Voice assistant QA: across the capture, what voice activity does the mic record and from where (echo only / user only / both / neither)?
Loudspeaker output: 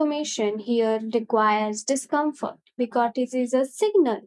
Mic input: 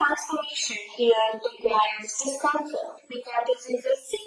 echo only